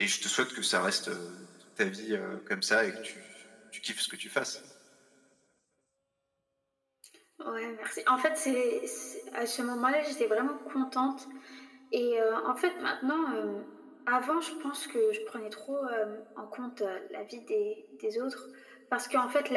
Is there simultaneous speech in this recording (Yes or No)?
No